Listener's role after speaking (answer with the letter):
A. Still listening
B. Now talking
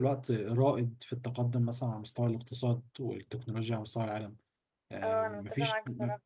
B